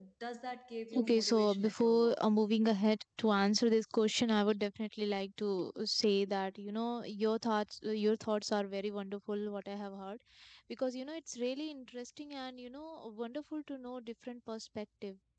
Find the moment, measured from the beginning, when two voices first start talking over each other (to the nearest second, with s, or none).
1 s